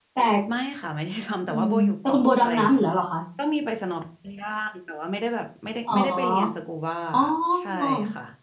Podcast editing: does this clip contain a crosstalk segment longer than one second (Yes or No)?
Yes